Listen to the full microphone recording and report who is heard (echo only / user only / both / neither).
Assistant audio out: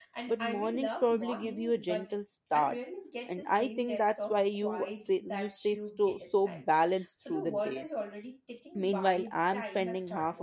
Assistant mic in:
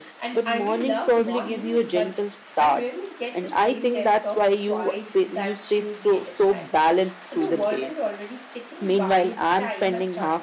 echo only